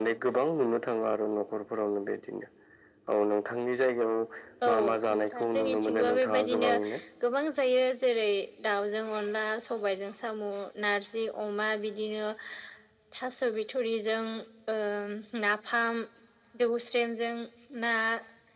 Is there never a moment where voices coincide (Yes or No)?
No